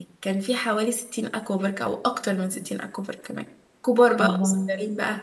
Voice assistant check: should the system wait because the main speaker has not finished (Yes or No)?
Yes